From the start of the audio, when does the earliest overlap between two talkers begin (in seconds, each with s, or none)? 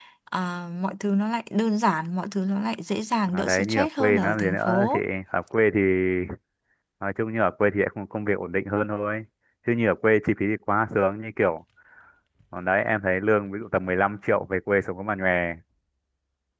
3.3 s